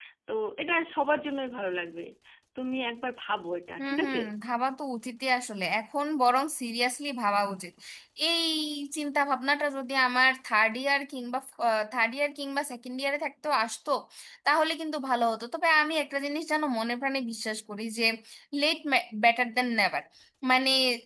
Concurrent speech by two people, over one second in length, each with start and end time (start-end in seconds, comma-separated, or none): none